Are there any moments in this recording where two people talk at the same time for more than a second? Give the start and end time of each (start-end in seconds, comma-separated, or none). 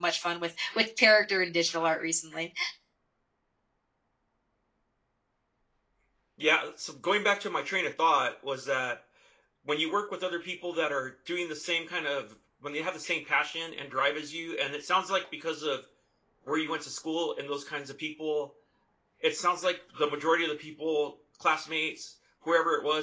none